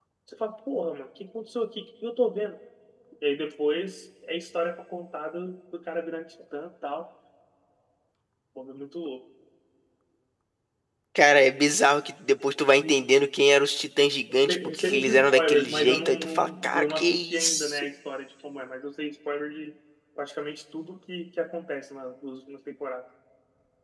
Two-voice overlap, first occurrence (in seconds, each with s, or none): 14.5 s